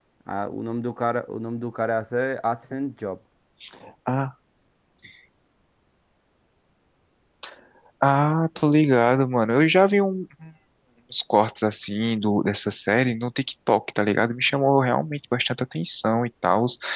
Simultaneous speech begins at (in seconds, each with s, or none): none